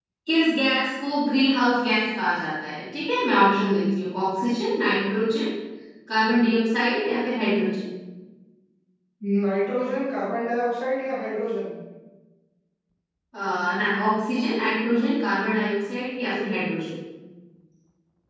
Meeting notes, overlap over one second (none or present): none